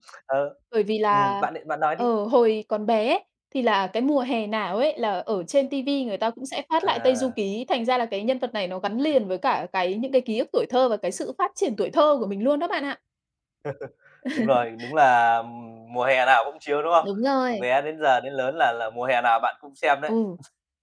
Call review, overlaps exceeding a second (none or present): none